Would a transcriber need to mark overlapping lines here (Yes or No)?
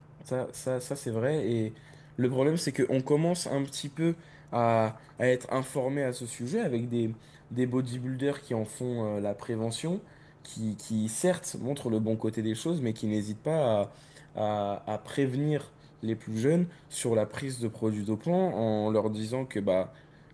No